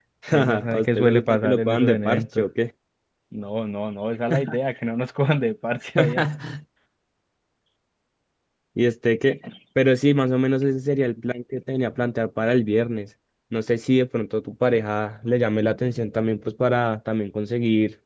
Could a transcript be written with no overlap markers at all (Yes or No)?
No